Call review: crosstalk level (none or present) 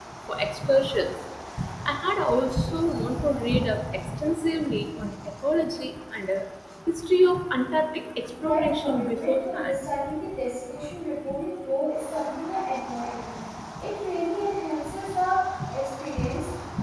present